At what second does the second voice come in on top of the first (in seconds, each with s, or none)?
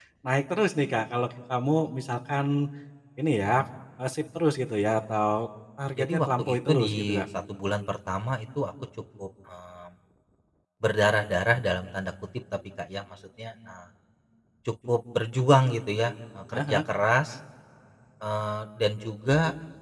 6.0 s